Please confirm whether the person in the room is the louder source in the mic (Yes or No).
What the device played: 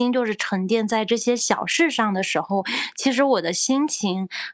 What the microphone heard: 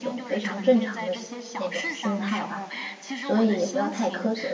Yes